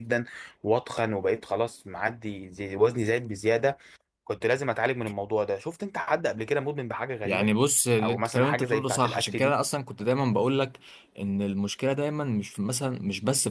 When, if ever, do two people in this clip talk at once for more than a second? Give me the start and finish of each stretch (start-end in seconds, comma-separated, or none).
8.0-9.5